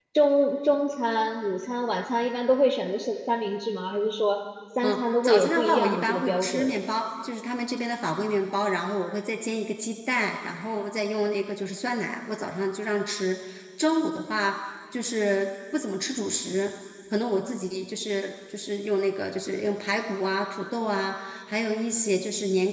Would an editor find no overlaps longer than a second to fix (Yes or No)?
No